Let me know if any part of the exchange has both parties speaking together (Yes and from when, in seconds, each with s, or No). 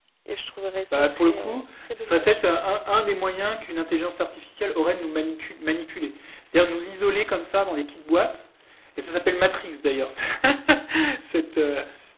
Yes, from 0.9 s